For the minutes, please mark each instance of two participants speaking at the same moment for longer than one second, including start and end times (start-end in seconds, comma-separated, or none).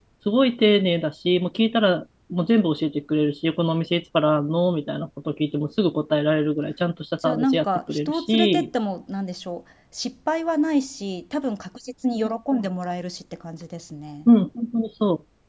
7.2-8.7